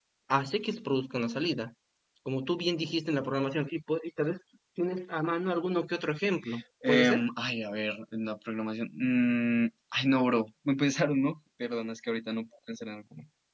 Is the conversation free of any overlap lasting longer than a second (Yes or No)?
Yes